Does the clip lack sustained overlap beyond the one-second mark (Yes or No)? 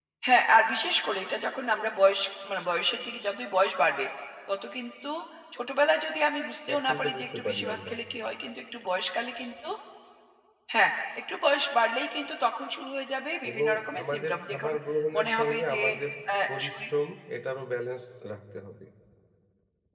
No